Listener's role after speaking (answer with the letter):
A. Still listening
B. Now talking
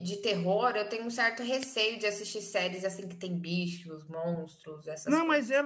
B